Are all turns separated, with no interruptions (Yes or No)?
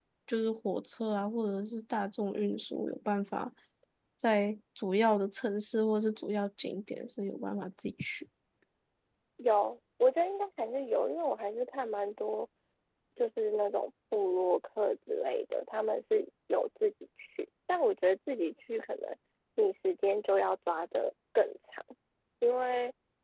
Yes